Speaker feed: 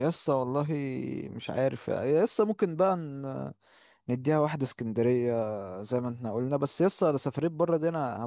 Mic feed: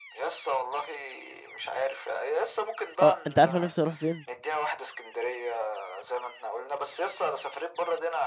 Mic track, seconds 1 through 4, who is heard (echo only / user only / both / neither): both